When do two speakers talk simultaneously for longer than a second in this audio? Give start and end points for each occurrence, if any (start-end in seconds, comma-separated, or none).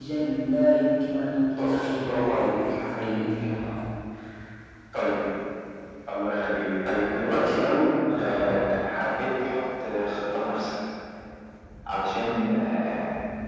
1.6-3.2